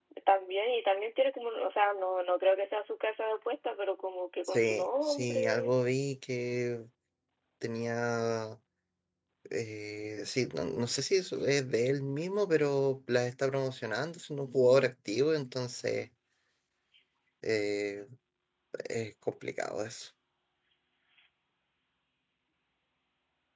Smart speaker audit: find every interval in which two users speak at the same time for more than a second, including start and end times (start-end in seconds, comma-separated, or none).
4.5-5.7